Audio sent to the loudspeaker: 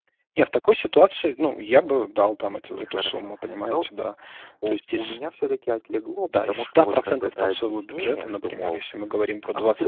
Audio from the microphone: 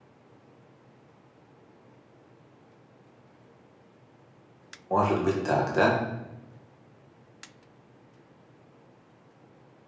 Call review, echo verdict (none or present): none